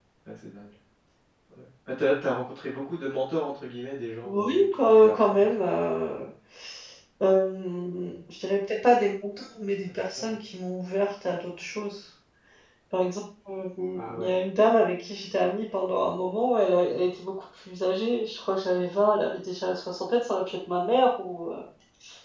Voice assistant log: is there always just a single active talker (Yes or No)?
No